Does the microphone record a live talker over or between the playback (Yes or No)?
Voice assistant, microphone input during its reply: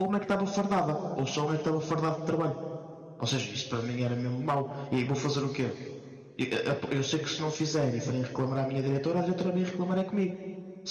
Yes